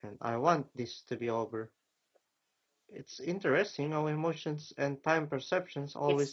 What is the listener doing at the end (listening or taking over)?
taking over